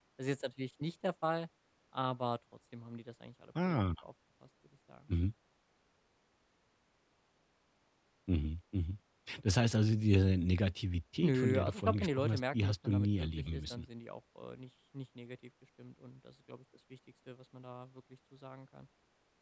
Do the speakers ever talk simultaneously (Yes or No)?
Yes